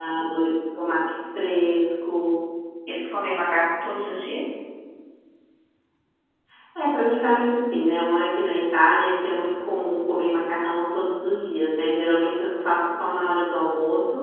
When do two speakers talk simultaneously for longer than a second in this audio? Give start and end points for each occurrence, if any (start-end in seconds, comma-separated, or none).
none